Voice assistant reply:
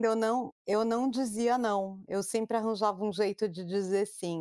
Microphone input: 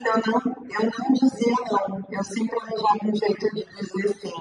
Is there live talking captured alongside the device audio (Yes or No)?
No